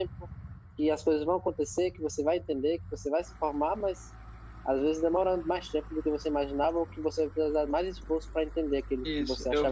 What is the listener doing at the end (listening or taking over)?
taking over